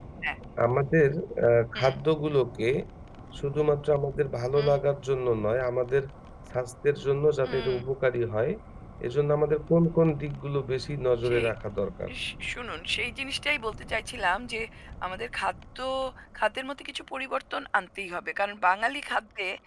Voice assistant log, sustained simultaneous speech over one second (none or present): none